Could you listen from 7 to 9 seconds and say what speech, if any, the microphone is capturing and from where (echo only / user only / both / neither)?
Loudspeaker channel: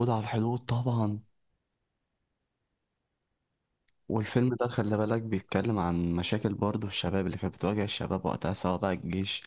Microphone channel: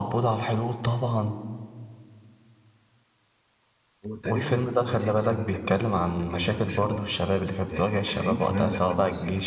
both